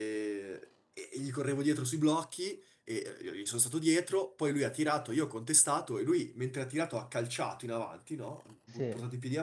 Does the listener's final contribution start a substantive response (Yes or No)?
No